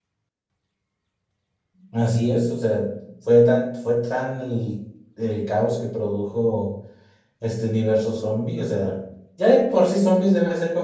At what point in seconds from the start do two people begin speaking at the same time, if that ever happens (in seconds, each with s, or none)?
none